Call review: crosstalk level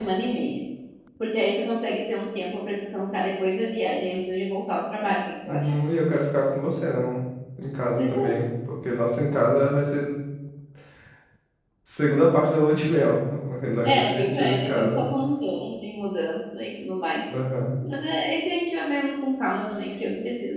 present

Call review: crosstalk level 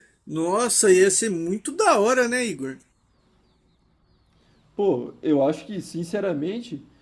none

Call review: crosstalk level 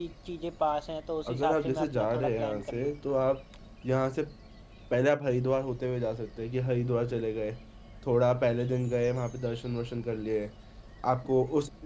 present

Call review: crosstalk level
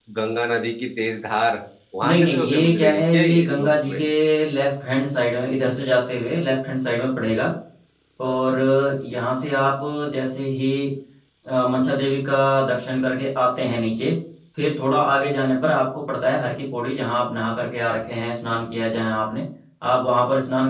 present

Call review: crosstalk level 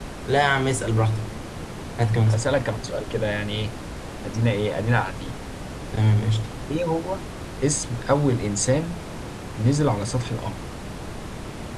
none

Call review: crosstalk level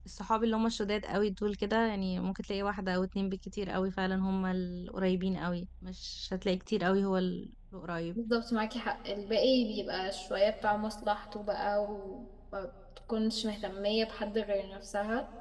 none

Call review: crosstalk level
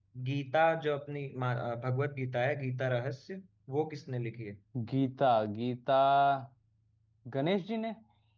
none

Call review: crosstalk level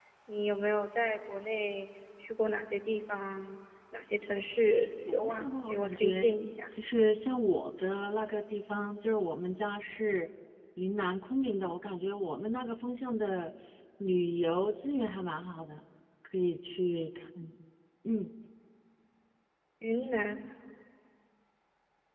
present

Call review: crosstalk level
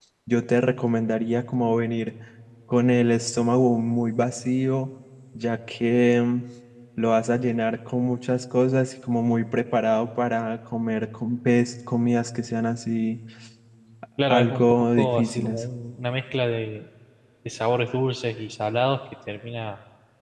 present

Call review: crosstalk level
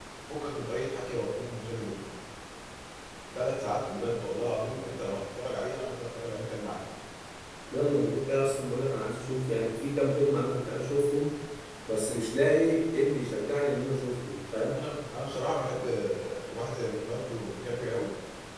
none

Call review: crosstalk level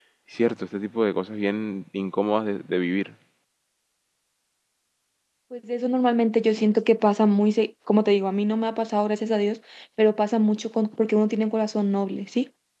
none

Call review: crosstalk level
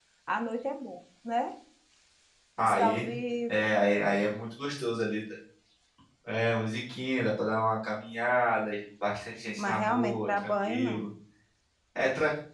present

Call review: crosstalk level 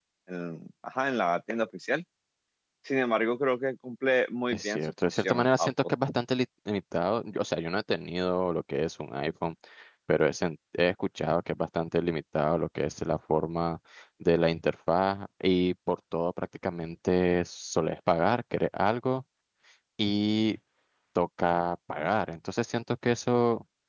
present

